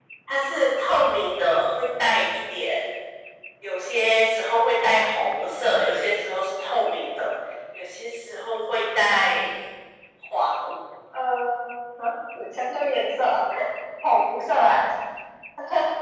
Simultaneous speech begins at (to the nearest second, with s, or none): none